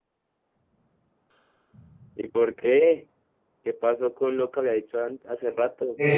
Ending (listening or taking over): taking over